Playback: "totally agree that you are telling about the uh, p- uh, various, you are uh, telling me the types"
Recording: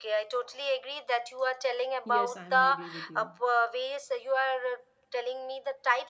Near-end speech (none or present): present